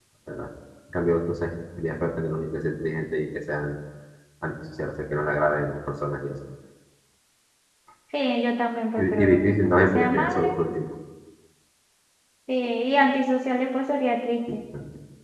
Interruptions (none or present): present